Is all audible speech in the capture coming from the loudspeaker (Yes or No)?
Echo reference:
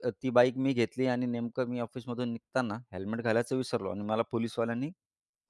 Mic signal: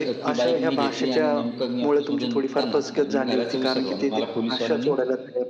No